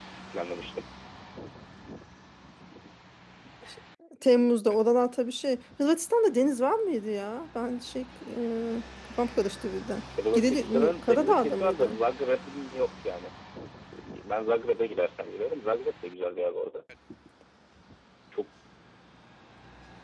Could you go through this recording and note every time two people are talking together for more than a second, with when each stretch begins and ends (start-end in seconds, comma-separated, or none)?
10.3-12.0